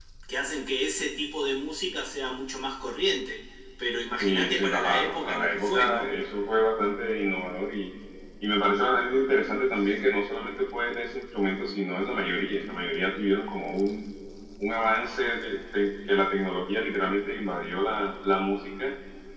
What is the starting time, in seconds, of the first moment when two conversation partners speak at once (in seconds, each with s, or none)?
4.2 s